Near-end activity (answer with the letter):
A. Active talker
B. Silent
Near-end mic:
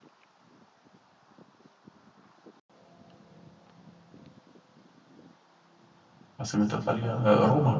A